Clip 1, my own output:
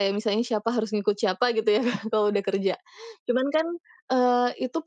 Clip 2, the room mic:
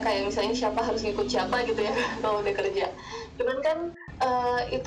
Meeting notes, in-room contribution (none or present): none